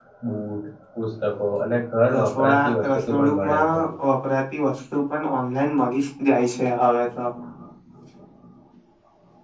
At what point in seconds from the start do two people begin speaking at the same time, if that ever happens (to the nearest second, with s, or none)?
2 s